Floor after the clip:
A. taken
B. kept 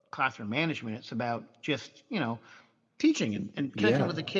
B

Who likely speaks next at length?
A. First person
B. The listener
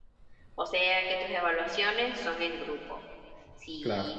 A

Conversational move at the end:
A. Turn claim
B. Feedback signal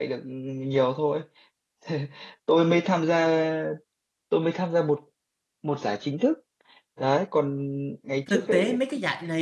A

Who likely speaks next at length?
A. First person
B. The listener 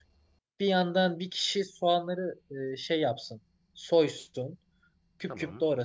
A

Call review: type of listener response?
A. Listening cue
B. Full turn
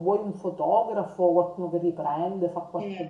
B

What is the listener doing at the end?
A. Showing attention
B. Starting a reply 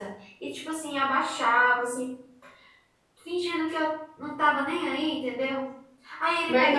A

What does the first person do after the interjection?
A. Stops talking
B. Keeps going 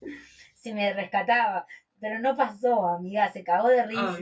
B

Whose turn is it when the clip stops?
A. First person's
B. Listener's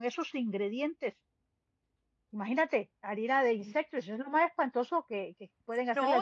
B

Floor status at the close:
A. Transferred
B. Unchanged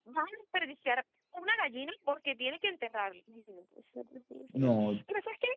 B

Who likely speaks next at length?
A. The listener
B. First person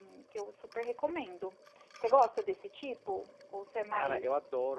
A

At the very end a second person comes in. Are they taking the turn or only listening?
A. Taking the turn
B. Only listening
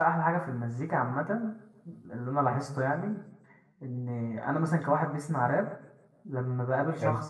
B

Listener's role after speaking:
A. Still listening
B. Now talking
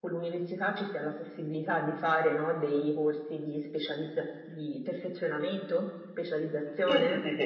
B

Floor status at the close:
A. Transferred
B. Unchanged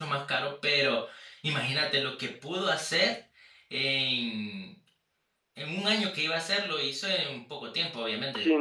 A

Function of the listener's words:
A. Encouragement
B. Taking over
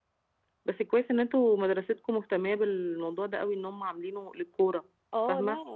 B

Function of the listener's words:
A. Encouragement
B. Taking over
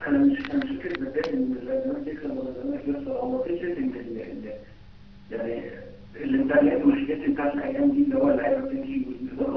B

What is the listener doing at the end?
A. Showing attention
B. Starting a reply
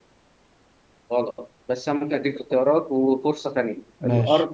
A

